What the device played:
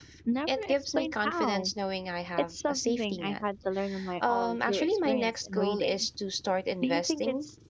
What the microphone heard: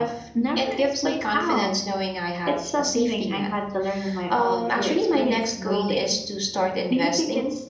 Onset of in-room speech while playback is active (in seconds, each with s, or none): none